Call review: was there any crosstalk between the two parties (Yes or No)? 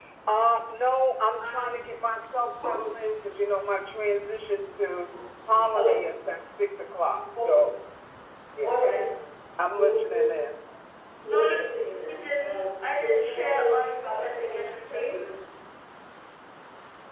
Yes